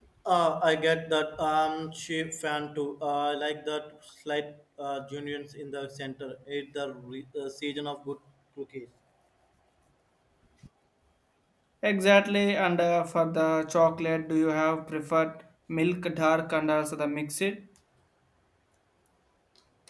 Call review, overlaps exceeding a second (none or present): none